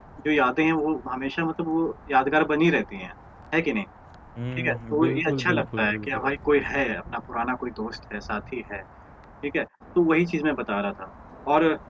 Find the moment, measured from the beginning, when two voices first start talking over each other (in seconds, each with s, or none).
4.6 s